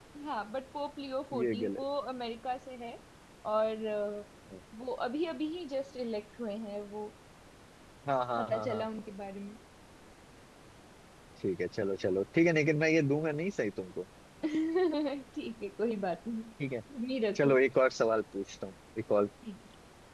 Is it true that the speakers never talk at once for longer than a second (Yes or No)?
Yes